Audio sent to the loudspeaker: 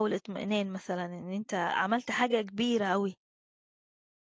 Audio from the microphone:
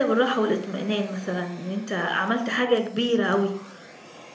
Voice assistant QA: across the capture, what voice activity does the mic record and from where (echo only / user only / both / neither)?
echo only